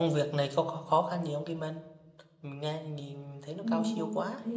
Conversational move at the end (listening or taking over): taking over